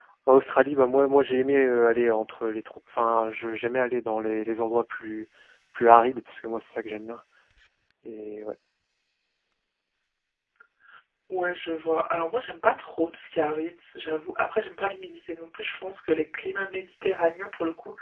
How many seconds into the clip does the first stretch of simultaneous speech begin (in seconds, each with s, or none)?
none